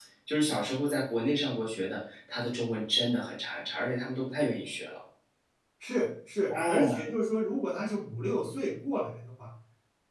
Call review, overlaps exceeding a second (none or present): none